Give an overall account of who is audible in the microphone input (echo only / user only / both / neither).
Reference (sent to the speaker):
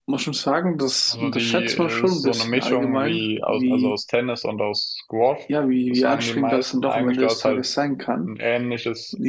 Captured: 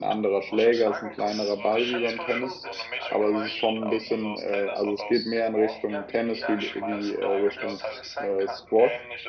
both